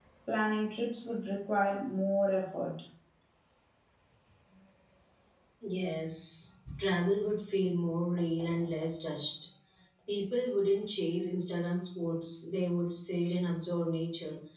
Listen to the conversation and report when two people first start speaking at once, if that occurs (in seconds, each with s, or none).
none